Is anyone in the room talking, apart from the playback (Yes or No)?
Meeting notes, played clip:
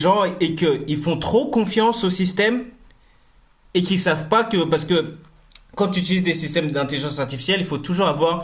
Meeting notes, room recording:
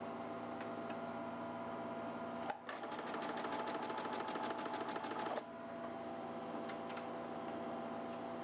No